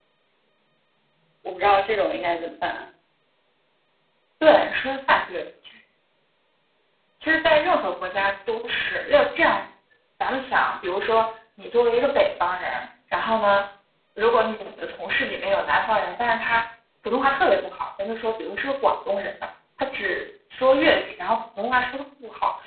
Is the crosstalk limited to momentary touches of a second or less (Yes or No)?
Yes